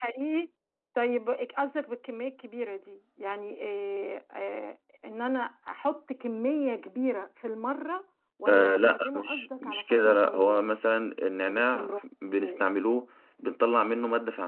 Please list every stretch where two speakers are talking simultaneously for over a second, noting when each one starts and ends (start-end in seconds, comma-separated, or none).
8.5-10.6